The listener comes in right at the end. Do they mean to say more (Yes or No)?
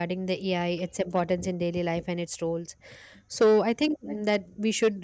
No